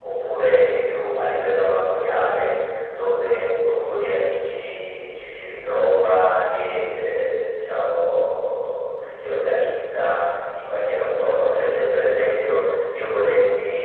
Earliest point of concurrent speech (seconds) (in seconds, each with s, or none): none